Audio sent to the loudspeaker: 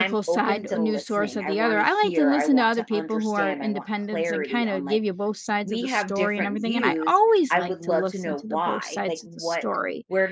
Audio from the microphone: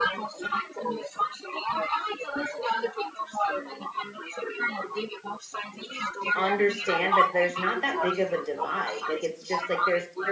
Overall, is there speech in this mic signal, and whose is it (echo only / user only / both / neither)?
both